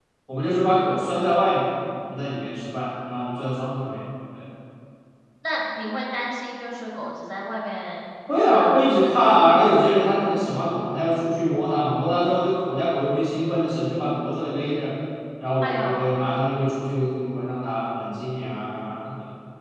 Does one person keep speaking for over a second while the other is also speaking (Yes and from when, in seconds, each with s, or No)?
No